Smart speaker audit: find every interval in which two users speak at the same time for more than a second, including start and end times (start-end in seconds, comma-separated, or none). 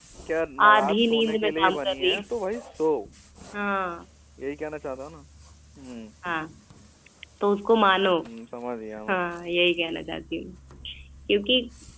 0.7-2.2